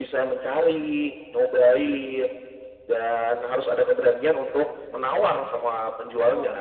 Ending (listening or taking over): taking over